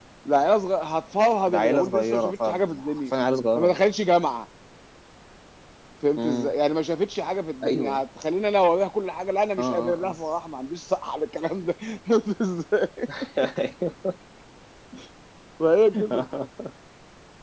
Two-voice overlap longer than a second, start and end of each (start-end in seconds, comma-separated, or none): 1.5-3.0